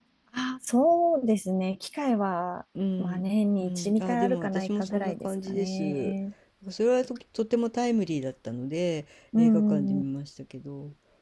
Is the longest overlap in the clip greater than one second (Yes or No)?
Yes